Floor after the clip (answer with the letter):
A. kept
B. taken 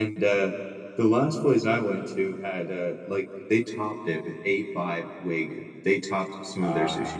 A